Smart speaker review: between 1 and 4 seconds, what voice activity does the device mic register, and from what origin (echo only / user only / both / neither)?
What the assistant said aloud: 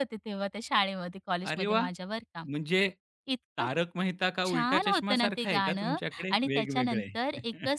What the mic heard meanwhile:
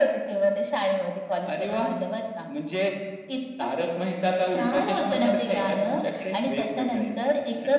echo only